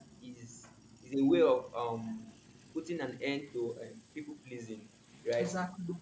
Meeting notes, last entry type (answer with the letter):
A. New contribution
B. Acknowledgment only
B